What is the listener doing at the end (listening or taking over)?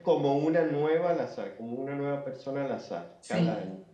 taking over